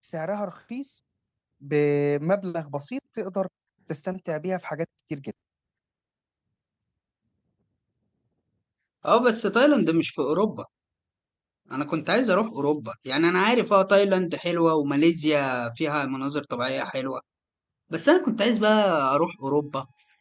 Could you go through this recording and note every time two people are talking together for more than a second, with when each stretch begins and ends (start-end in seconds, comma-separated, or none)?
none